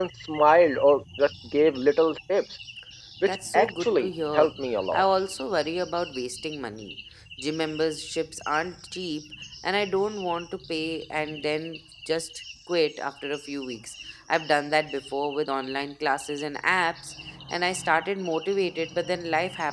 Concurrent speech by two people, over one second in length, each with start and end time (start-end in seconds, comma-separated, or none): 3.3-4.5